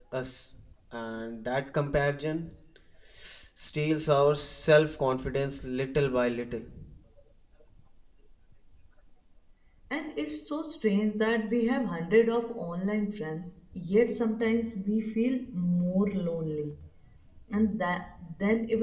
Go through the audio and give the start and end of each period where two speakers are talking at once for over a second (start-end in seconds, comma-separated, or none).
none